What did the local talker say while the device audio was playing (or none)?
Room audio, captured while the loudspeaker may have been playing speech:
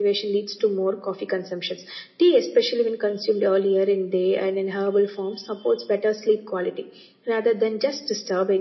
none